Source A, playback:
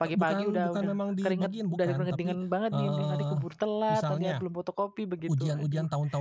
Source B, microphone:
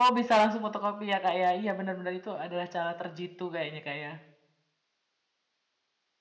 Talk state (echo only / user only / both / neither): user only